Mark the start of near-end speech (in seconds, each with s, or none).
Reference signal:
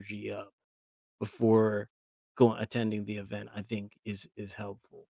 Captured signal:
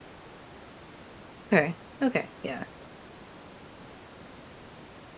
1.5 s